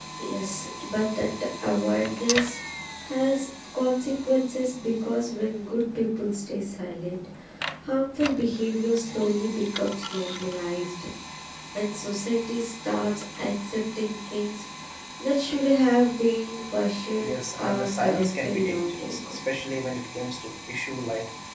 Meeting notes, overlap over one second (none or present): present